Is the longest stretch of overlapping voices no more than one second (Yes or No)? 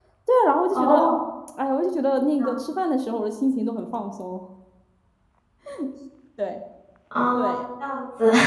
Yes